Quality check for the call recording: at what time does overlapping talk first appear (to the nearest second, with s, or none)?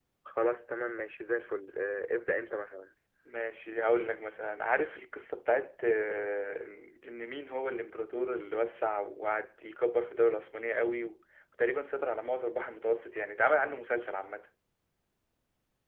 none